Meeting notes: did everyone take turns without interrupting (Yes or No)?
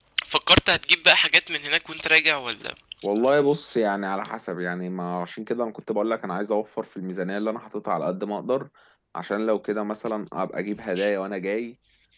Yes